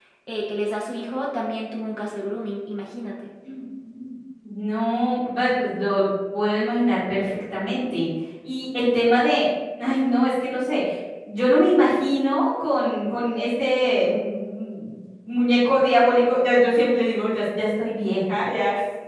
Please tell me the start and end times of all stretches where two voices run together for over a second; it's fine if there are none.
none

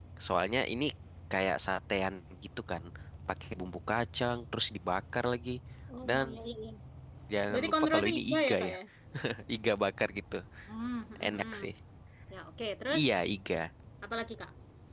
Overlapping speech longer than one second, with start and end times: 7.5-8.7

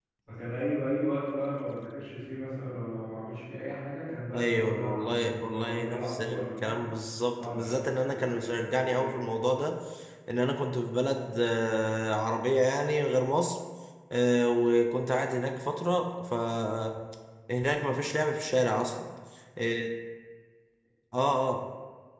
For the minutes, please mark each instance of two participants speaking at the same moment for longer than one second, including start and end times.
4.3-6.8, 7.4-9.2

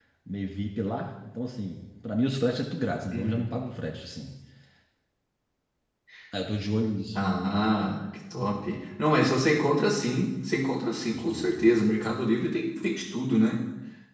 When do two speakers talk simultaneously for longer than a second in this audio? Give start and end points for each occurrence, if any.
none

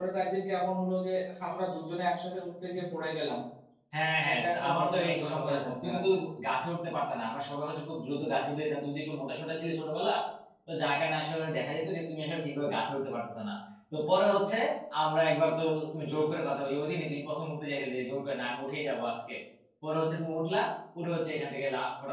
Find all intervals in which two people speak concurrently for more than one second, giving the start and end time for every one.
4.2-6.1

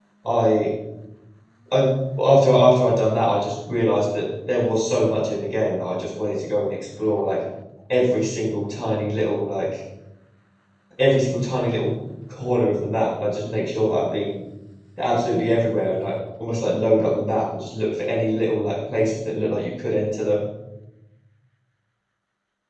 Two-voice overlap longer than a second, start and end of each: none

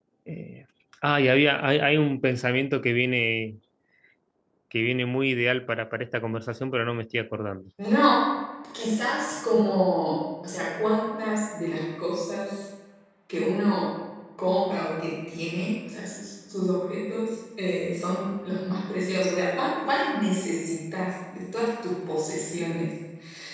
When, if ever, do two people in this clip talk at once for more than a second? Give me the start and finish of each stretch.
none

